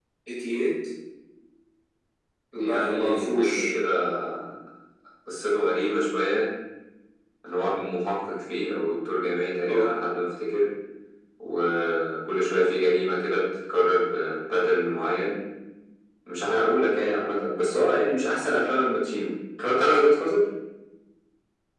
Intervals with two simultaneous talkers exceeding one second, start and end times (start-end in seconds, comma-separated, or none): 2.5-3.7